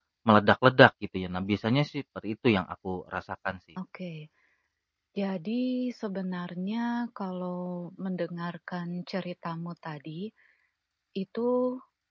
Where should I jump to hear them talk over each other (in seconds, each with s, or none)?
none